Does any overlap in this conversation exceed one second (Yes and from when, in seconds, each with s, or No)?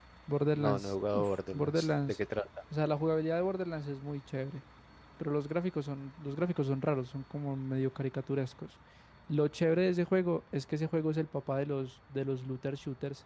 Yes, from 0.6 s